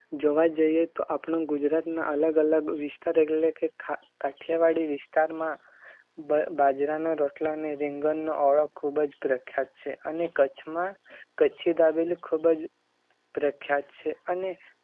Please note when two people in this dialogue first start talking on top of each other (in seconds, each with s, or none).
none